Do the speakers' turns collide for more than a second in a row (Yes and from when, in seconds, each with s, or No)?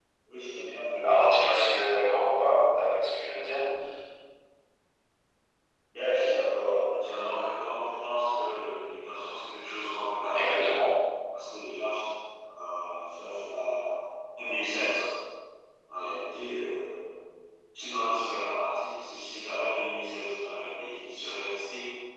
No